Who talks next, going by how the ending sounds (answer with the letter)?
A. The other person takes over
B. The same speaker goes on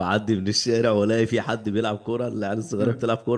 B